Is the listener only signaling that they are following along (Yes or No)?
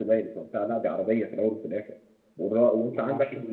Yes